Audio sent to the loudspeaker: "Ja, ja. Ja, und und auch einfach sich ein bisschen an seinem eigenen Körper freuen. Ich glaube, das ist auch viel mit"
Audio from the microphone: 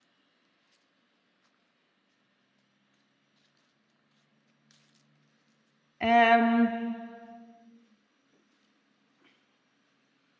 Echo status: none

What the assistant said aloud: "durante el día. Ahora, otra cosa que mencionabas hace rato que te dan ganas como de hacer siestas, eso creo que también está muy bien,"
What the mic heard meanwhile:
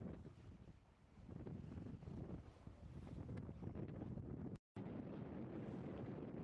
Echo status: none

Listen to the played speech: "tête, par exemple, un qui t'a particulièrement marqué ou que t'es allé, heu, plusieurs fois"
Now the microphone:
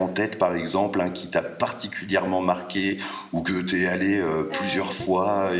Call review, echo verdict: present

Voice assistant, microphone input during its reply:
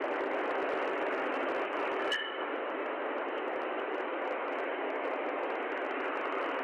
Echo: none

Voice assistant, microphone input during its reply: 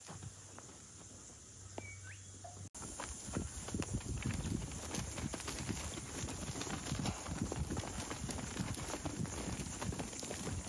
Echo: none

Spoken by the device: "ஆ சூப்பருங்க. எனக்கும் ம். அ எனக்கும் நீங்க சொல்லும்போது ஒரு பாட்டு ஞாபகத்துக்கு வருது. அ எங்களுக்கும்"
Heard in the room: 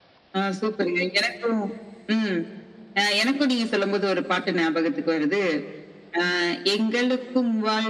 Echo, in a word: present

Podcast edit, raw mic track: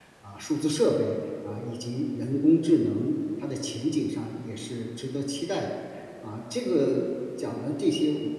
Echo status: none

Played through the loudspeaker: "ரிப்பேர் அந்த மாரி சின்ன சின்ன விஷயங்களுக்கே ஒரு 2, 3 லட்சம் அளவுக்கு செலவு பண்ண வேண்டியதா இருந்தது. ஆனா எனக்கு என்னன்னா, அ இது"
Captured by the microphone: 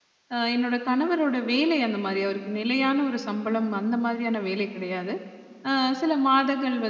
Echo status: none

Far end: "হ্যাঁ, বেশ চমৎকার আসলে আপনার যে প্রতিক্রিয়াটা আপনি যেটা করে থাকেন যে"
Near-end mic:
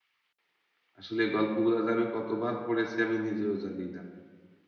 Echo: none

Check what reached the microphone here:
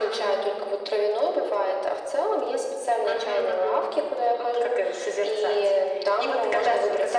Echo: present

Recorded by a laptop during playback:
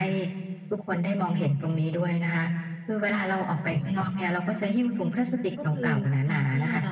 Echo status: present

